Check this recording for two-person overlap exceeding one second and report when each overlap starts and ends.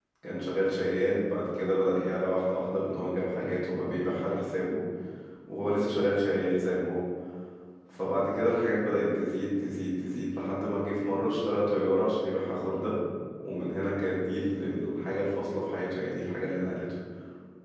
none

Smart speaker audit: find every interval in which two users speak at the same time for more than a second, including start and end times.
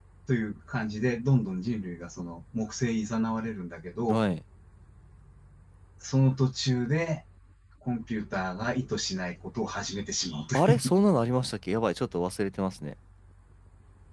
none

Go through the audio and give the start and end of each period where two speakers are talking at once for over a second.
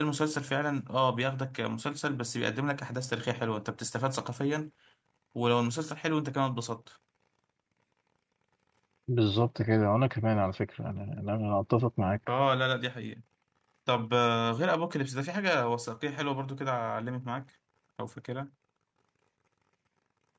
none

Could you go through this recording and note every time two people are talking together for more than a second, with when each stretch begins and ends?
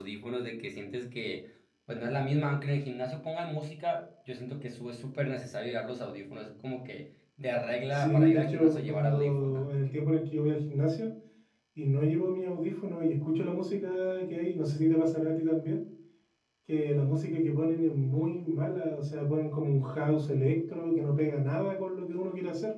8.0-9.6

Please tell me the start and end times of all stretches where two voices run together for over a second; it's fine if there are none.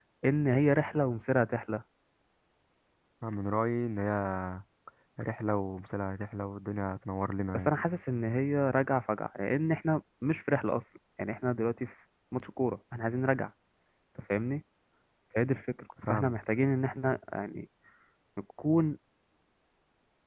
none

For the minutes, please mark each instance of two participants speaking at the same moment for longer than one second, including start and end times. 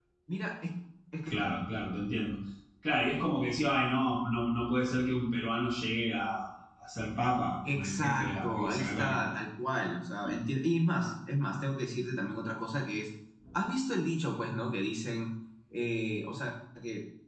7.6-9.2

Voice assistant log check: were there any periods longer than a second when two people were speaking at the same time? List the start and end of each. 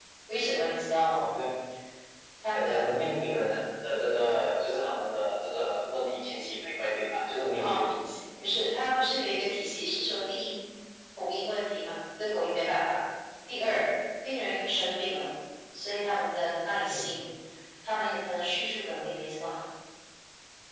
none

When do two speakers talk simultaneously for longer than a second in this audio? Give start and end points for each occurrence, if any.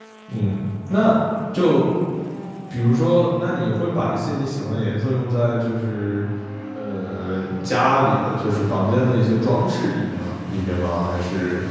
none

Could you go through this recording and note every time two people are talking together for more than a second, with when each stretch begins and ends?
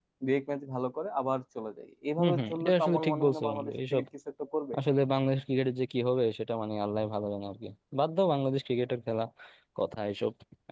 2.2-4.0

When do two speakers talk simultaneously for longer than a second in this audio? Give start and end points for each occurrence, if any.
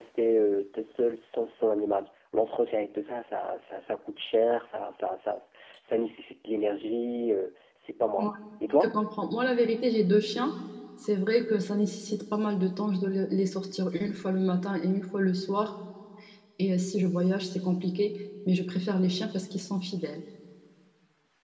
none

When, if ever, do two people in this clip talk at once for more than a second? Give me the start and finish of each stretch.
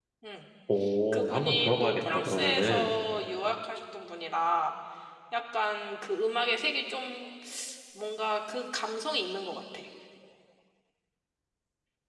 1.1-2.9

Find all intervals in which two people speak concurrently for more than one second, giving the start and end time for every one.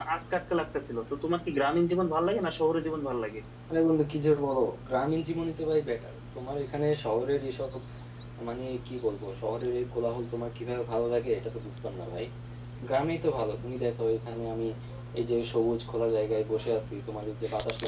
none

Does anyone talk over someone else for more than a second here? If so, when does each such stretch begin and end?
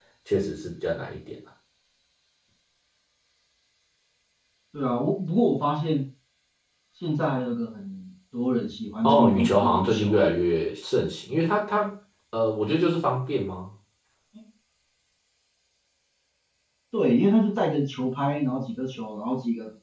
9.0-10.3

